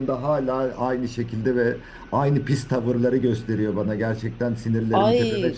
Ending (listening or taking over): taking over